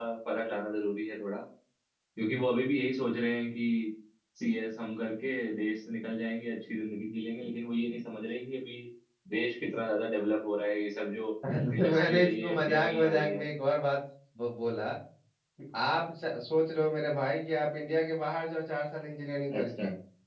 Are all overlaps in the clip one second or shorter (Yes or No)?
No